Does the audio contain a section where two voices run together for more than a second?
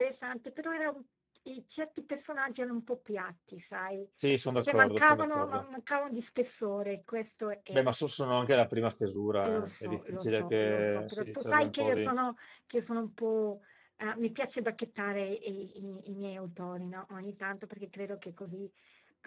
Yes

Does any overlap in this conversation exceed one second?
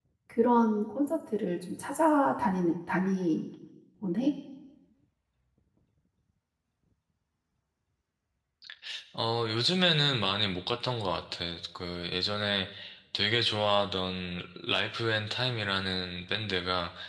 No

